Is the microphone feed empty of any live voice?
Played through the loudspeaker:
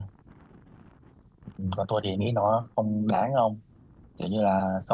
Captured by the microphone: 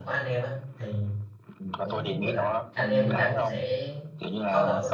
No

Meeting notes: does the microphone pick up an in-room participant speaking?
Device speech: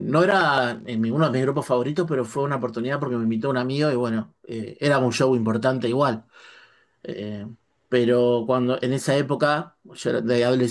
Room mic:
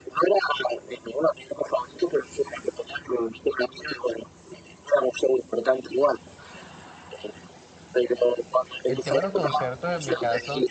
Yes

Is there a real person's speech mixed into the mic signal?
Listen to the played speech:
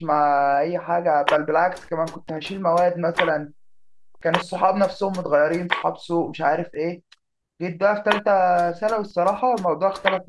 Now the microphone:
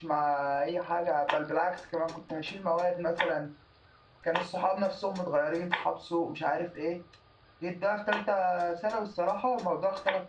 No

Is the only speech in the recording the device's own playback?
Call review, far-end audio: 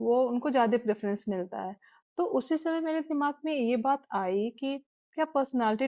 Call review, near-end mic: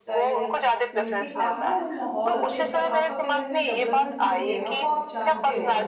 No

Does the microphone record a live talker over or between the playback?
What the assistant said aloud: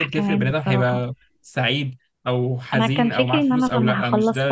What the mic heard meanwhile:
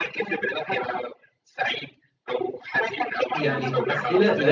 Yes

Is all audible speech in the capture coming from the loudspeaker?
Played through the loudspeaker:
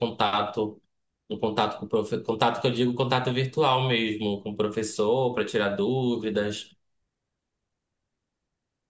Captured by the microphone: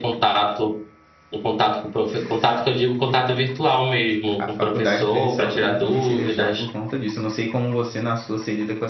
No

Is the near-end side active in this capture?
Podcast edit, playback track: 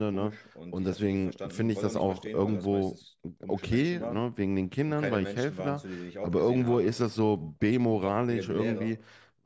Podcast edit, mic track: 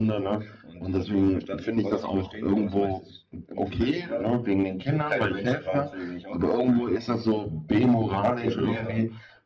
No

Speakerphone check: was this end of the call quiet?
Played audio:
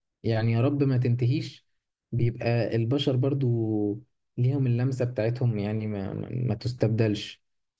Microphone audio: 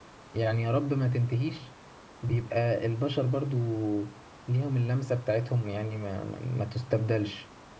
Yes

